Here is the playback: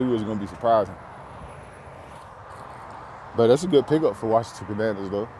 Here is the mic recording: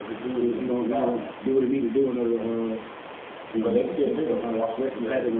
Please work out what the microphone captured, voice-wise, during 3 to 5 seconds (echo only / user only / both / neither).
both